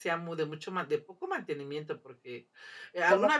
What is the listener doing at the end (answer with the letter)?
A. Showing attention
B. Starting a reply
A